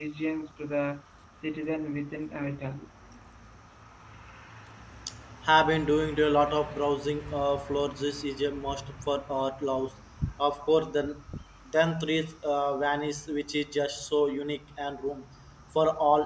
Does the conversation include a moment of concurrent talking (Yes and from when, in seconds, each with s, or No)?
No